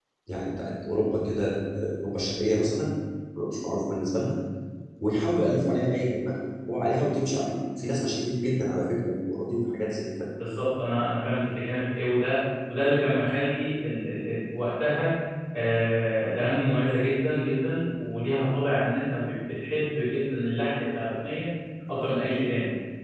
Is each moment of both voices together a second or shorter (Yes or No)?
Yes